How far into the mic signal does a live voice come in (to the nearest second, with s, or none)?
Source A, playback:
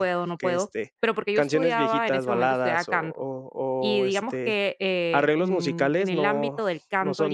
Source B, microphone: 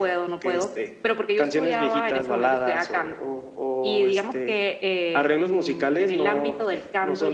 none